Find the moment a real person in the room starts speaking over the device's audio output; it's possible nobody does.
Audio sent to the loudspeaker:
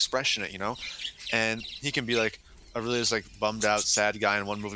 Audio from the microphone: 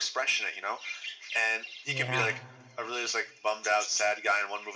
1.8 s

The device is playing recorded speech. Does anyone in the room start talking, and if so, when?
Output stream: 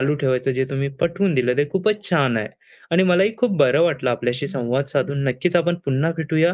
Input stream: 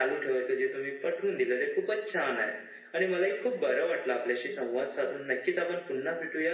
none

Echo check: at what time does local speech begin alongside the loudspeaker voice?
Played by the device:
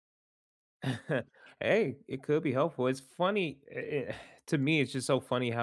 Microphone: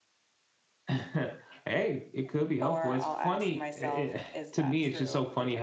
2.6 s

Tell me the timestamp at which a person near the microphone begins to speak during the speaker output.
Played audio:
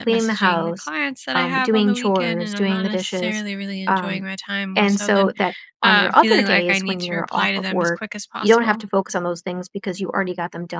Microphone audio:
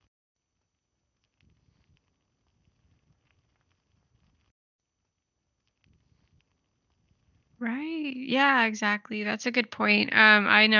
7.6 s

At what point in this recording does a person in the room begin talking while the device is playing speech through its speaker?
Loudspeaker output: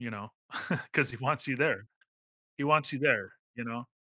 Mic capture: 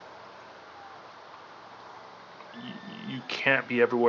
2.5 s

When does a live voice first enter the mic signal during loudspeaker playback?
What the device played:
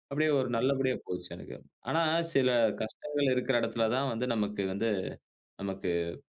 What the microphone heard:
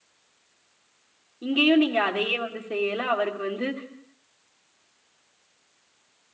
1.4 s

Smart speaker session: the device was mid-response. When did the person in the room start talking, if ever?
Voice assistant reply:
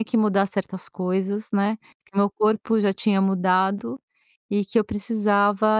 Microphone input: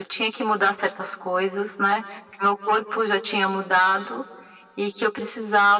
none

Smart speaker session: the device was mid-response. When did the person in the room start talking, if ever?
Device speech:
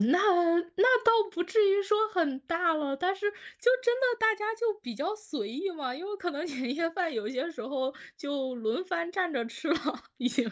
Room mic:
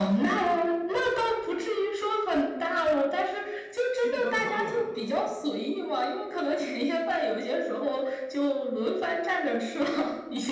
3.9 s

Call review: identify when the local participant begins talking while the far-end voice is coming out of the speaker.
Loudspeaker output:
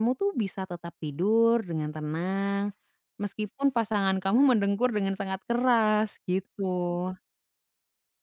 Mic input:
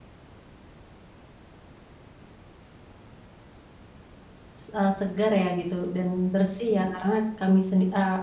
4.6 s

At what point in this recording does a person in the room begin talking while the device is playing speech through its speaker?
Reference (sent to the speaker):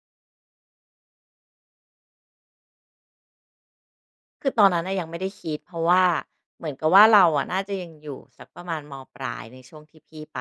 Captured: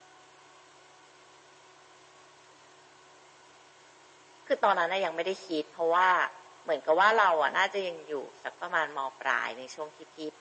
none

